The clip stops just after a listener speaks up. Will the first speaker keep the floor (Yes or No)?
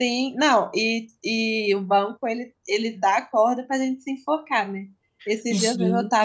Yes